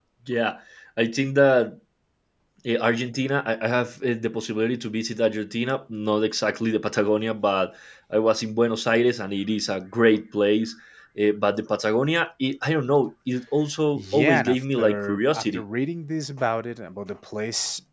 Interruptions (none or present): present